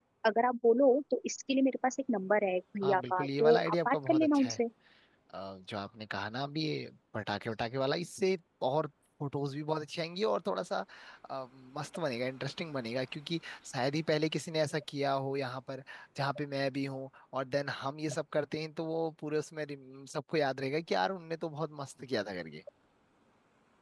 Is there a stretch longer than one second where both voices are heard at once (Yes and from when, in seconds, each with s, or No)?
Yes, from 2.8 s